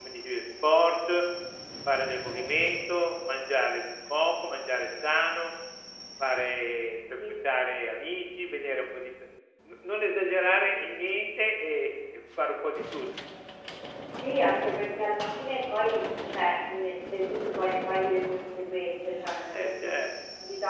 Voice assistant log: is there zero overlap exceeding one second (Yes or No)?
Yes